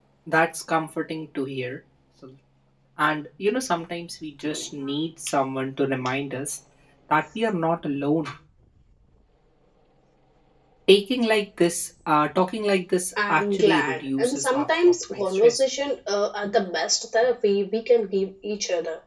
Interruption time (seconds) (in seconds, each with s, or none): 13.2 s